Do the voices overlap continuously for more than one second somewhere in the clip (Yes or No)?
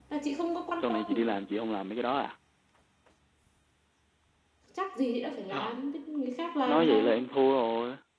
No